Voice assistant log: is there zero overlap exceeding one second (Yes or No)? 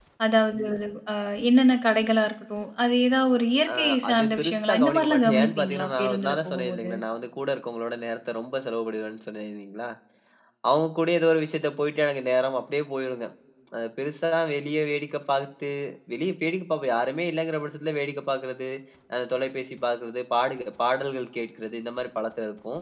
No